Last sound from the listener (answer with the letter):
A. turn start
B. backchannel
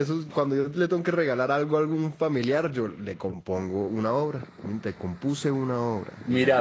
A